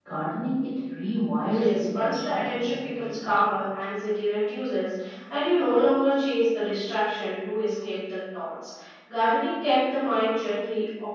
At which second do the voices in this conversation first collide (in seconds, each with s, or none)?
1.4 s